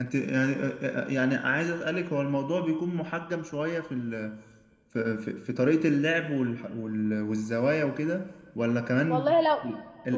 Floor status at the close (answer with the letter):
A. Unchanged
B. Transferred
B